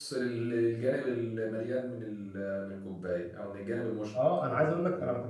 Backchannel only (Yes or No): No